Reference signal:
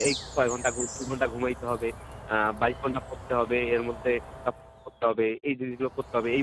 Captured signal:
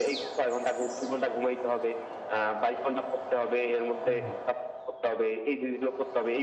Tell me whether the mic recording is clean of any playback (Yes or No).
No